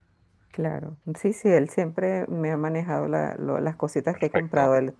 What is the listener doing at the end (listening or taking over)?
listening